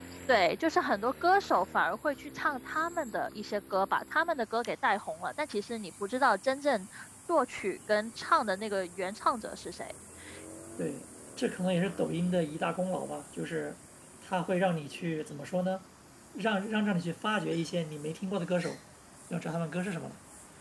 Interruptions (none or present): none